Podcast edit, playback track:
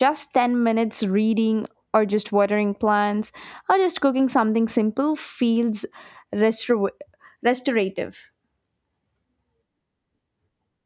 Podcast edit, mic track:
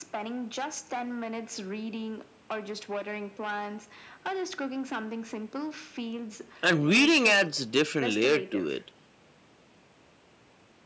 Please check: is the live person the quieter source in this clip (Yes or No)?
No